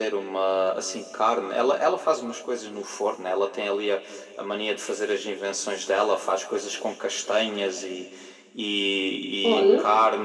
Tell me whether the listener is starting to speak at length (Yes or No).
No